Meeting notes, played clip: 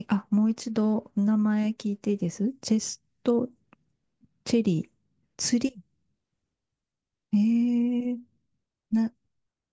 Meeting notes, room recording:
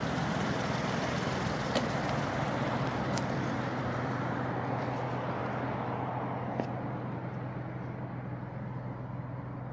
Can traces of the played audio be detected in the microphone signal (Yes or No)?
No